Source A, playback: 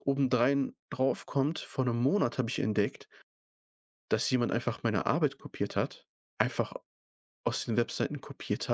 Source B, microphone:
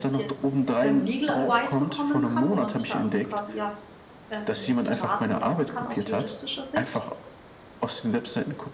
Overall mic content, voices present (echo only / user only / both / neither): both